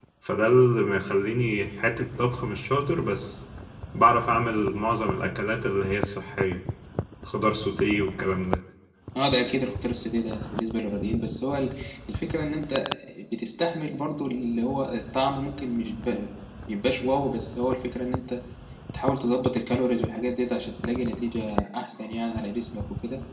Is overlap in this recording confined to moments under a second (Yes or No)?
Yes